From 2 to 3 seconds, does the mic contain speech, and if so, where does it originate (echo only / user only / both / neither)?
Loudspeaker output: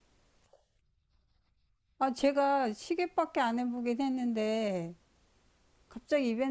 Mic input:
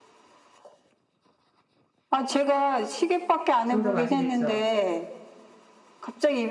echo only